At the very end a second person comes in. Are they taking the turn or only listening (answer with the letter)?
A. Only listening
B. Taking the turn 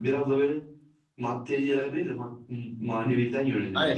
B